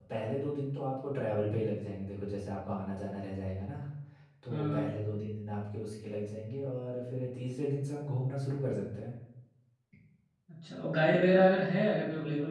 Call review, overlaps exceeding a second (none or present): none